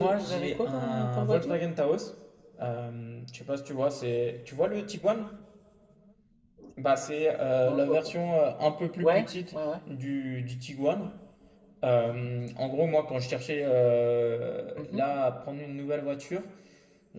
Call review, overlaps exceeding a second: present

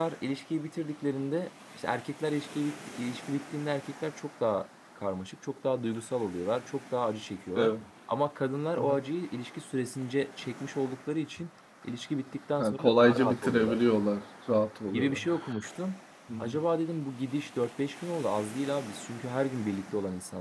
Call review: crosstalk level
present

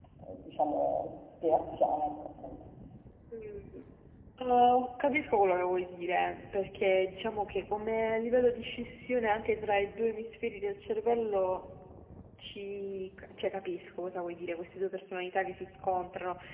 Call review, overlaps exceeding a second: none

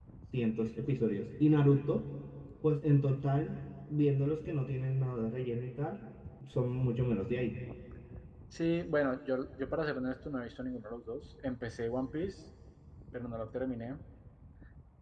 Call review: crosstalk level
none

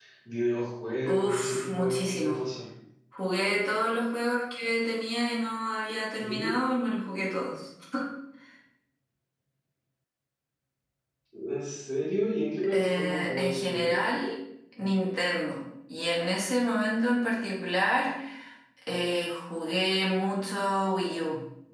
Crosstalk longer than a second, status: present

